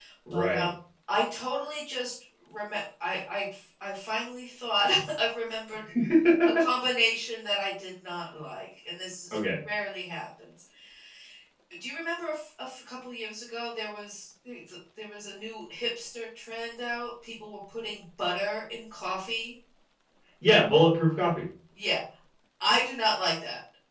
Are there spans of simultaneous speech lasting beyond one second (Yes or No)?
No